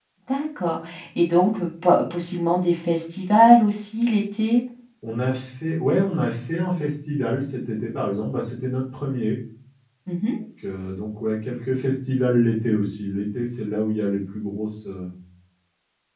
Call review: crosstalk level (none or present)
none